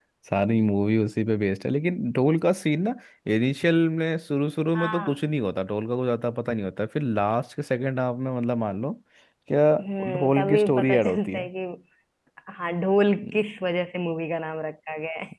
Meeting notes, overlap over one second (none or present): present